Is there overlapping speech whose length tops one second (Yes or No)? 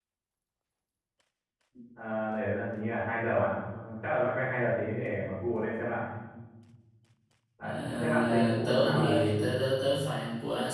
Yes